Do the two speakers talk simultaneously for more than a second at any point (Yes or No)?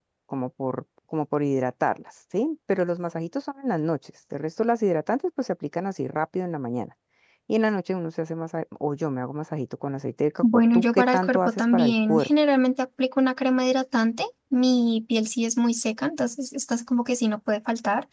Yes